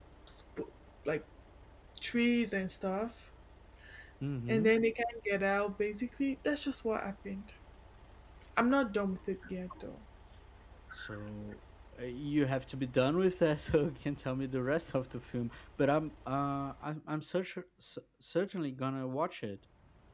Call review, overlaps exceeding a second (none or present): none